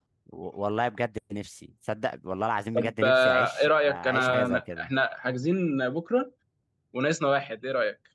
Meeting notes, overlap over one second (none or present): present